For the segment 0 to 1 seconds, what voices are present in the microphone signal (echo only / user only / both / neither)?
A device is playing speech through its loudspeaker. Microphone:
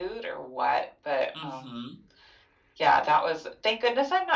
echo only